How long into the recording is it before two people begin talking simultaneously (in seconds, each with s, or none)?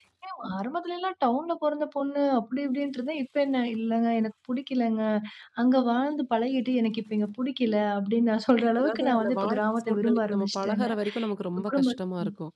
8.8 s